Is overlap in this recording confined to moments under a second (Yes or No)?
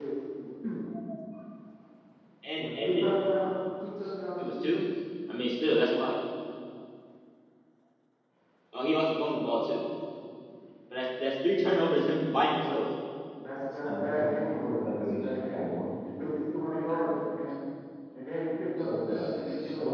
No